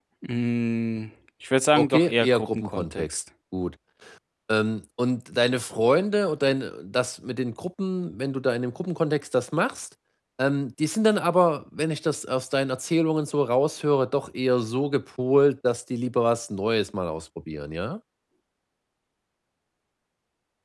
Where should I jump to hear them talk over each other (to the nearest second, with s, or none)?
2 s